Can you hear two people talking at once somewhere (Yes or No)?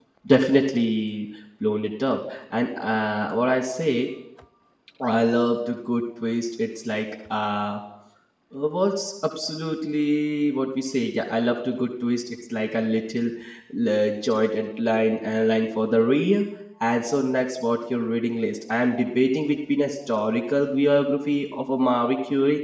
No